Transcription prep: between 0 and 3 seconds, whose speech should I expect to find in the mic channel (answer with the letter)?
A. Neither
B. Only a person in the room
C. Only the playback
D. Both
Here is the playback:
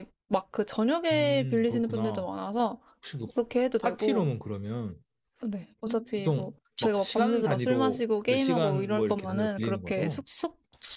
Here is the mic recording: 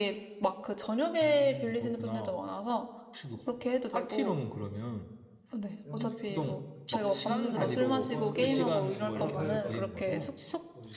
C